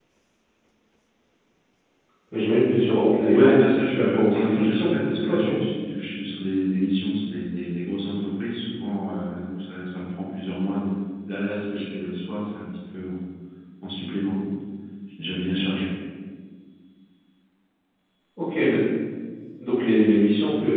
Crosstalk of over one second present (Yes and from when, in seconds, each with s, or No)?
Yes, from 3.3 s